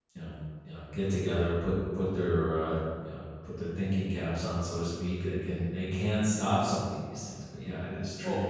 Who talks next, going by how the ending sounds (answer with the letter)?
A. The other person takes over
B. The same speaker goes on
A